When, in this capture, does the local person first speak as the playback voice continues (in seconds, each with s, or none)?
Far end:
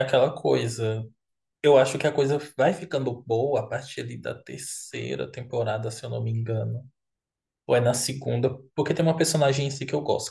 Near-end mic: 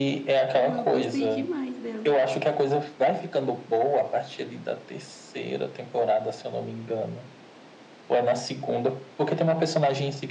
0.5 s